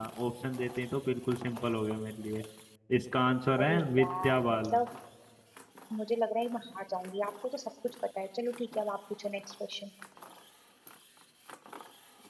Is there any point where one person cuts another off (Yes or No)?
Yes